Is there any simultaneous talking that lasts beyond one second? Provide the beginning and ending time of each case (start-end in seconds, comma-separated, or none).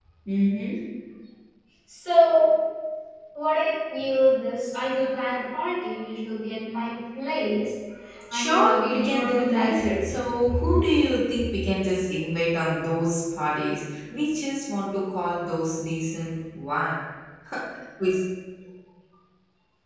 8.3-10.0